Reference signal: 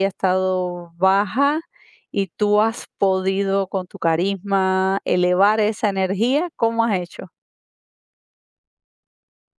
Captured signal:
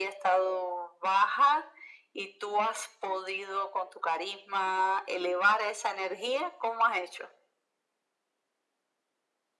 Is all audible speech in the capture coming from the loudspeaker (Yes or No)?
Yes